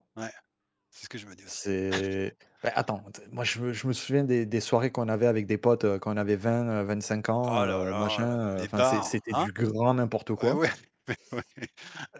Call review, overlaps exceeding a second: present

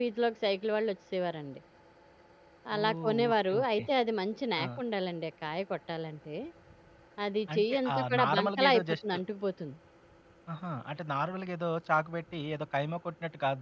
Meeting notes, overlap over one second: present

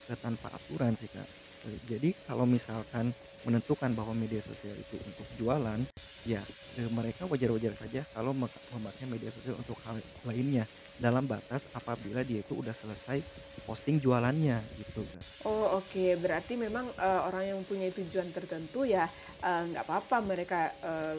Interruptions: none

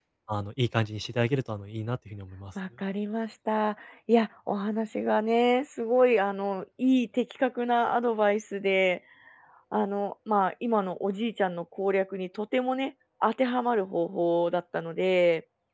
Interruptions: none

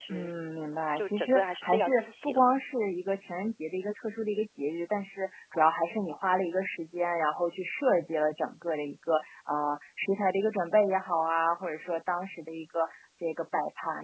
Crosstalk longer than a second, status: present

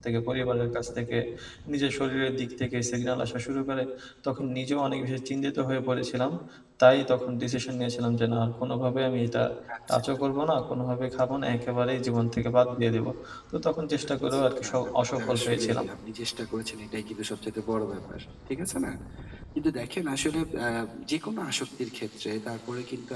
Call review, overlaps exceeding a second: present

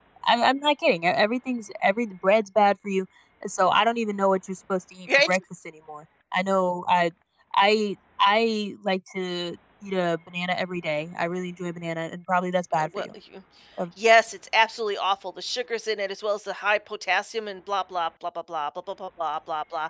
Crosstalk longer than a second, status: none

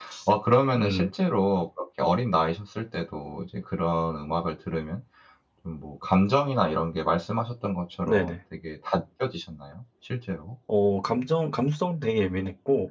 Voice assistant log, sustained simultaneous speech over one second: none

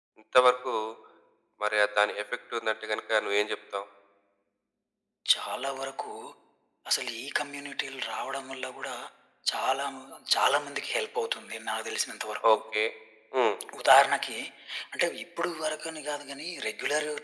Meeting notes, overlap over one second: none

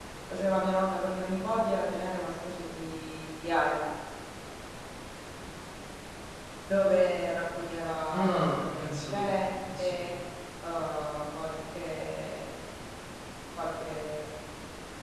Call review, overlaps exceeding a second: present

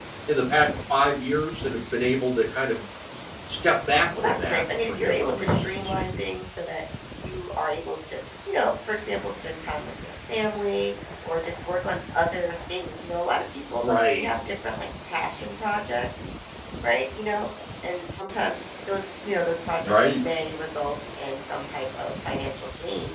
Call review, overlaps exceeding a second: present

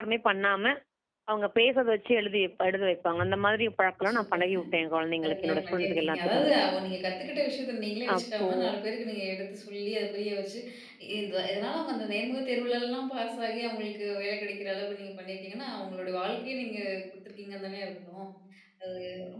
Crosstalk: present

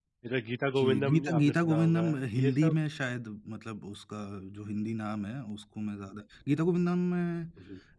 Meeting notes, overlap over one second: present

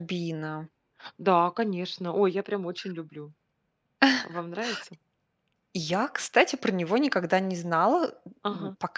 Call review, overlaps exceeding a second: none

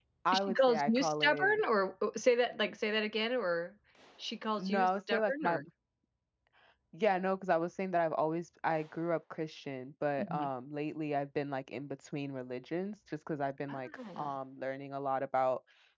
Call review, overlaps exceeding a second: present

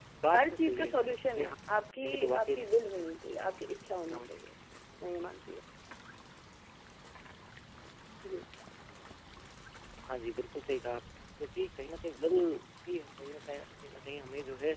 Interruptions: present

